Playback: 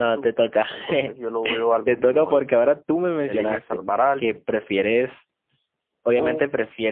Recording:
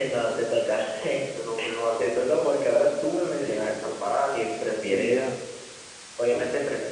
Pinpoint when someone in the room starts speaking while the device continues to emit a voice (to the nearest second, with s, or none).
5 s